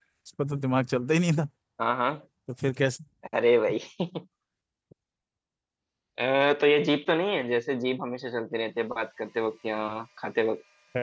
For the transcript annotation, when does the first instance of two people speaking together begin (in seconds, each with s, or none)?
none